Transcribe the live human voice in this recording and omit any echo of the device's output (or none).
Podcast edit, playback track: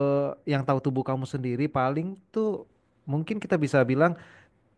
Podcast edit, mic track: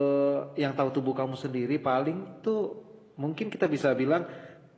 none